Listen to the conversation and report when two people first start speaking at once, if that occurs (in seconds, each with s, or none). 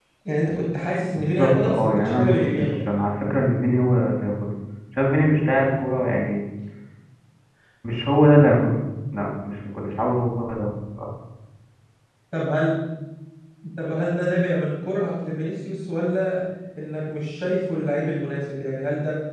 1.1 s